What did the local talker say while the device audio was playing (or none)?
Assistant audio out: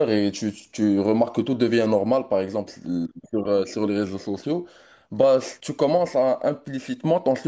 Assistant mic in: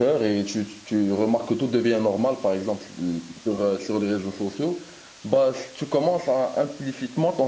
none